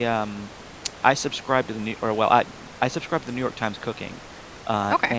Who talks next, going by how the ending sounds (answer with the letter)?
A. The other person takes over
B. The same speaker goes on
B